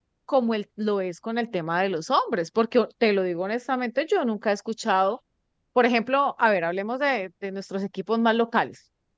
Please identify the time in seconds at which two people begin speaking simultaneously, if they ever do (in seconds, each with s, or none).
none